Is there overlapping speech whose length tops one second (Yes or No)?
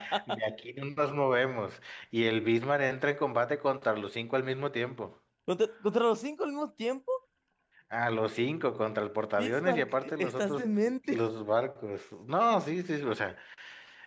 Yes